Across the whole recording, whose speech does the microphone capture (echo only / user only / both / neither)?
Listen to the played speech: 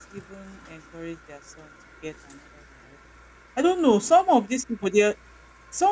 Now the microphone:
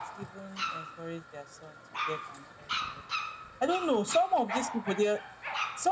echo only